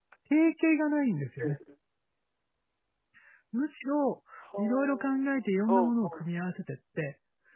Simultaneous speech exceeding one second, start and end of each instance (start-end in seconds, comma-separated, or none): 4.6-6.2